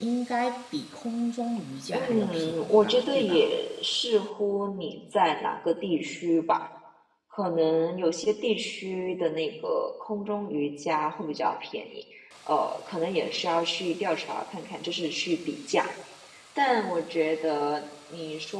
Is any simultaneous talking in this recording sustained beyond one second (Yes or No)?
Yes